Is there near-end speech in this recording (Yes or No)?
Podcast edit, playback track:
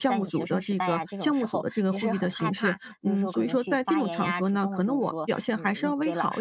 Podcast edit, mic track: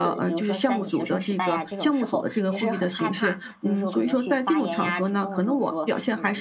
No